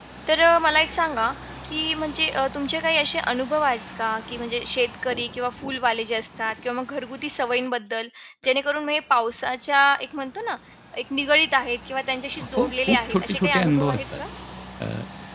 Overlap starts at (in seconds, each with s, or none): 12.6 s